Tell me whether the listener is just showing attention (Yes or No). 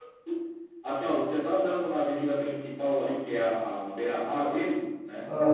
Yes